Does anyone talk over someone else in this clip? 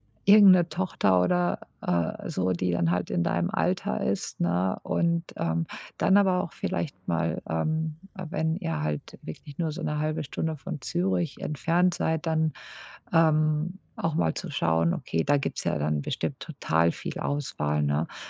No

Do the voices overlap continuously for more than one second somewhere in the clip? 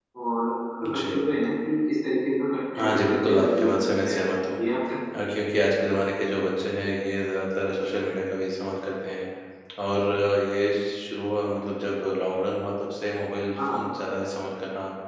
Yes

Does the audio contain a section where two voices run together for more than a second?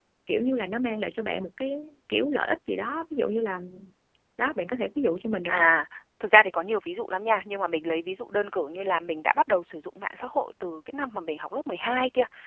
No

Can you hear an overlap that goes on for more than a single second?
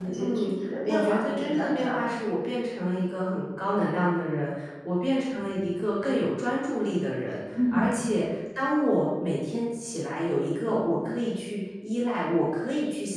Yes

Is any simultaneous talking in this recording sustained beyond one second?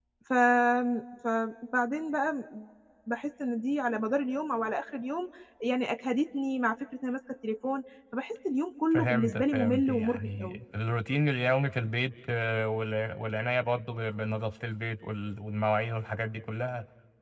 Yes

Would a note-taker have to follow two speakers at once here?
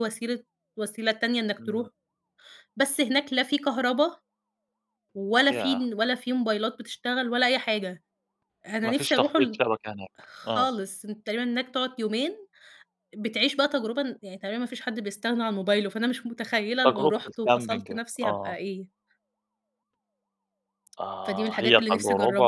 Yes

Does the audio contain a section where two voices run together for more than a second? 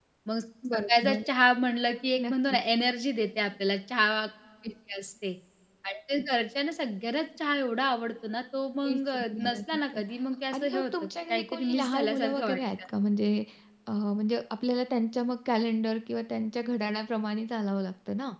Yes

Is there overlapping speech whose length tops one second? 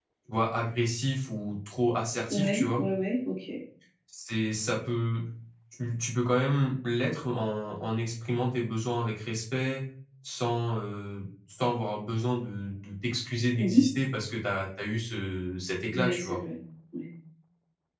No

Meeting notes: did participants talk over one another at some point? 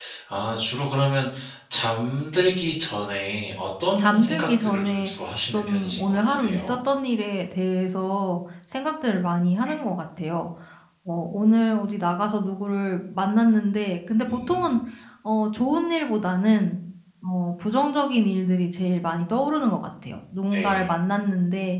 Yes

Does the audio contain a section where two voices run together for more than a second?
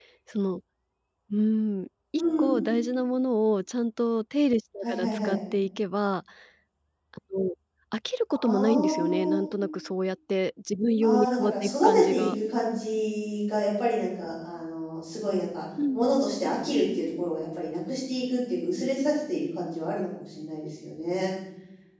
Yes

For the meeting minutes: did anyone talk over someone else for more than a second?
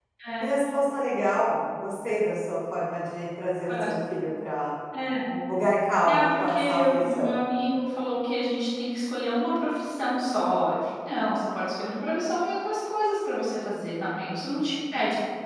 Yes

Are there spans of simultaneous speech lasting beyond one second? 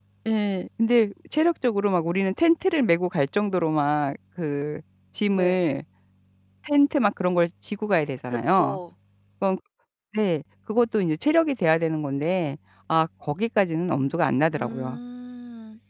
No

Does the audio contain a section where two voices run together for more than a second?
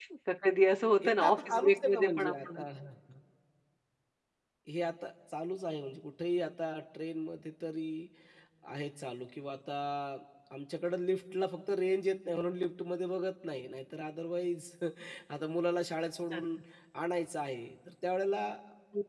Yes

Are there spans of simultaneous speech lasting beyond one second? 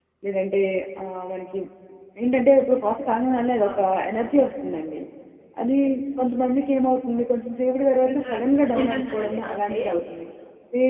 Yes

